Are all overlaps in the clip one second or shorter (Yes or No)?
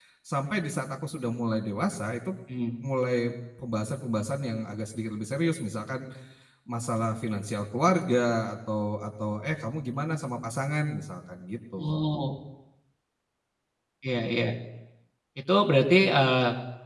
Yes